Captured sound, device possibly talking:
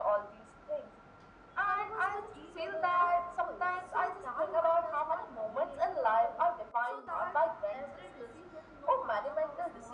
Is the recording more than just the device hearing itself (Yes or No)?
Yes